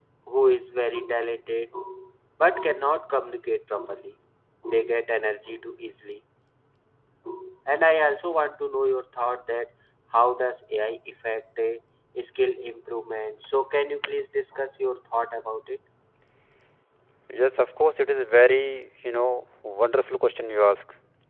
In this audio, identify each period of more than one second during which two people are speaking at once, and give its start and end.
none

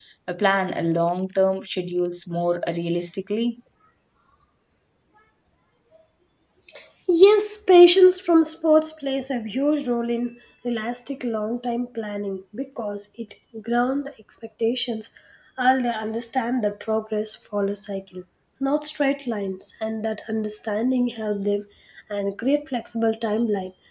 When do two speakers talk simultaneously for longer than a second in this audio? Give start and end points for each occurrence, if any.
none

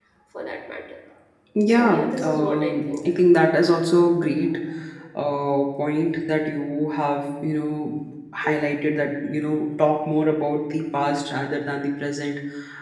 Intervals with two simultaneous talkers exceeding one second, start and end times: 1.7-2.9

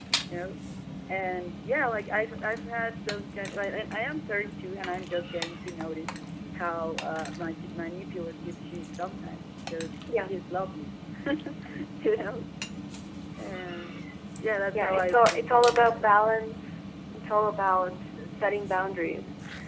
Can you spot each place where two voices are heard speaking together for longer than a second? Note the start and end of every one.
14.7-16.1

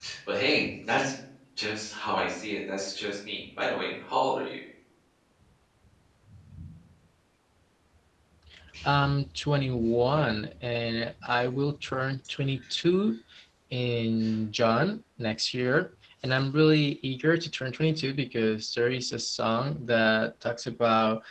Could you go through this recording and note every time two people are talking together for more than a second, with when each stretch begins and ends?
none

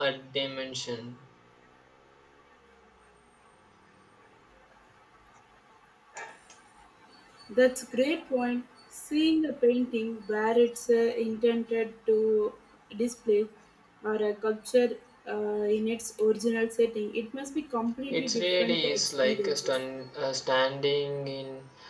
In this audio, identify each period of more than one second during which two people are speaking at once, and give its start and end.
18.1-19.8

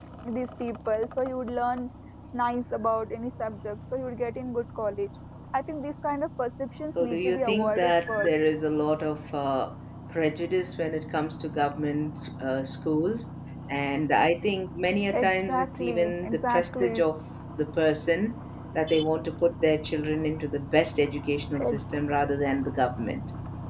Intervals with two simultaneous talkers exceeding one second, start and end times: 7.0-8.3, 15.1-17.0

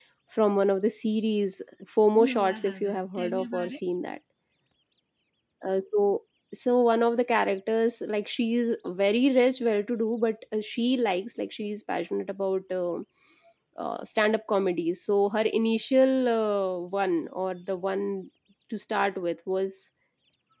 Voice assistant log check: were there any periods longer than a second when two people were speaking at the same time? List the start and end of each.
2.3-3.8

